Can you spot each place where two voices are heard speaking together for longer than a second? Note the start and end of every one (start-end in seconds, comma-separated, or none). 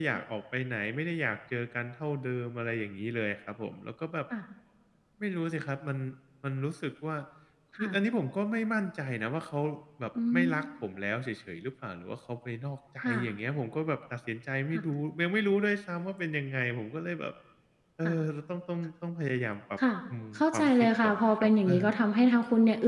20.4-21.8